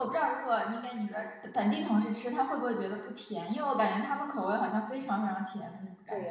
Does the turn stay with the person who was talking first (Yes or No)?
No